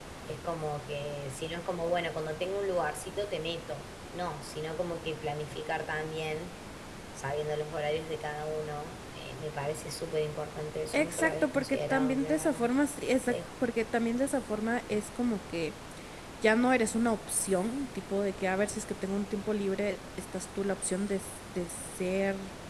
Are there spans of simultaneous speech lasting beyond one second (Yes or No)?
Yes